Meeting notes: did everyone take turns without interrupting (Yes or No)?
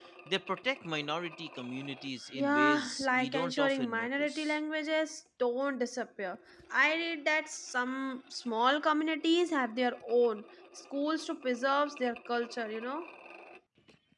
No